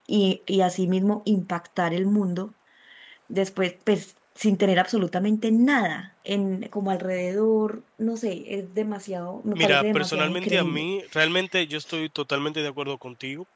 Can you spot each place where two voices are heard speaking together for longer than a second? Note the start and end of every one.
9.5-10.8

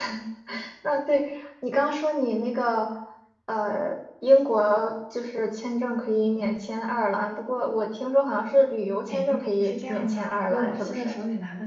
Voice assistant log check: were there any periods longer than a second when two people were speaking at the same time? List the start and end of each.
9.1-11.1

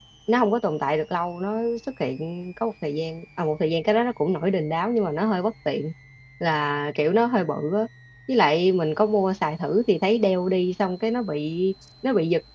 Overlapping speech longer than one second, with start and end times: none

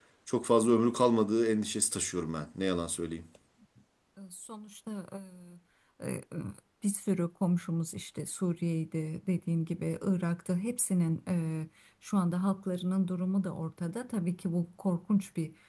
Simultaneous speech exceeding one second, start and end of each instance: none

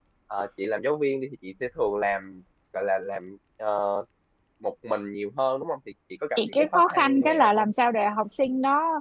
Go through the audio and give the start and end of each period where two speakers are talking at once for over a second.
6.4-7.7

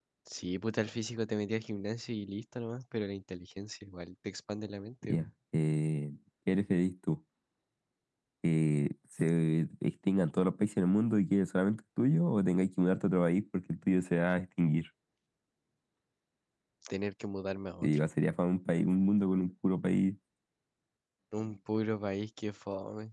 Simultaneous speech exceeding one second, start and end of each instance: none

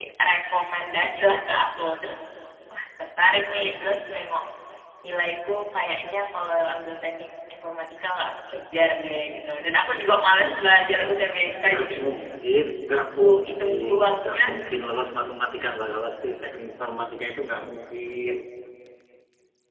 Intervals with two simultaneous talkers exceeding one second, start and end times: 13.0-14.4

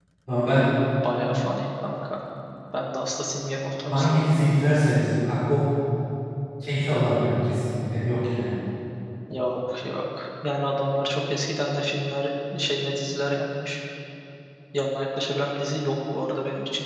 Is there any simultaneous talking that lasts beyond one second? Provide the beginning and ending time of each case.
none

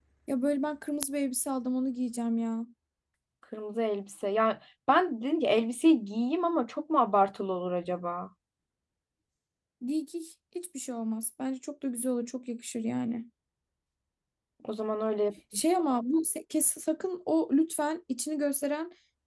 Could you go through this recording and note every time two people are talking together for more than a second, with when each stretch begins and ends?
none

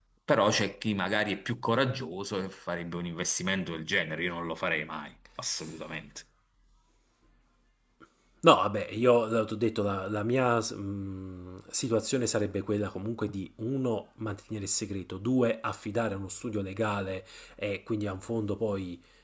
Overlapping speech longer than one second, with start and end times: none

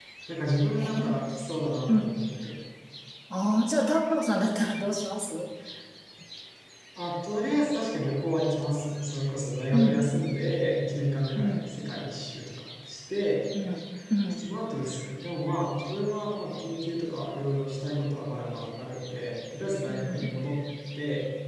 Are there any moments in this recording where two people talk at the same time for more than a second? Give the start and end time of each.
none

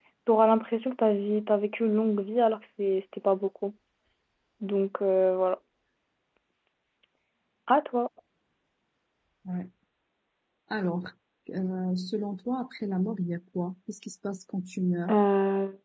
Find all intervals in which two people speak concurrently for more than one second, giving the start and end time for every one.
none

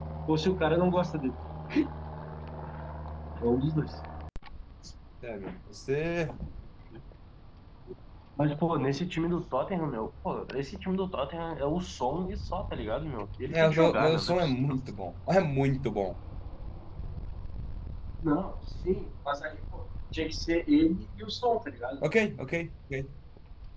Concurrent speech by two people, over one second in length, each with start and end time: 13.5-14.7

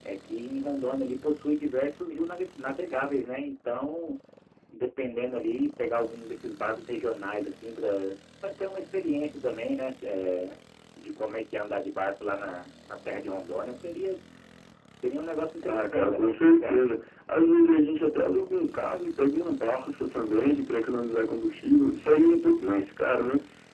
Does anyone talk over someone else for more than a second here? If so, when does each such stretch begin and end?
15.7-16.9

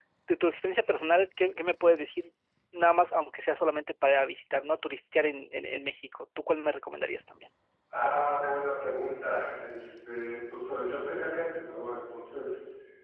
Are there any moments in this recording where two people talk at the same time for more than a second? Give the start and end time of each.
none

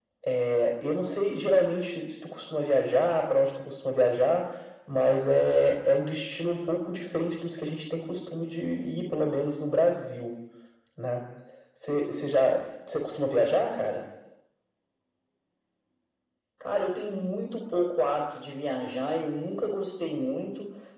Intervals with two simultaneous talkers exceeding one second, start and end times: none

